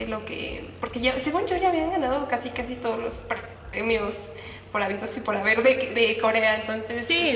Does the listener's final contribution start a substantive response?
Yes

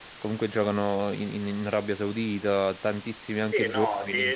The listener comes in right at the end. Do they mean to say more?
Yes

